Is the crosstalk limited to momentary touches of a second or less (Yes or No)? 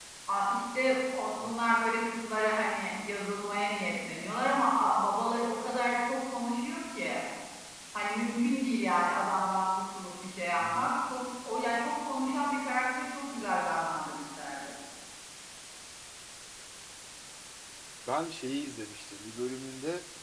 Yes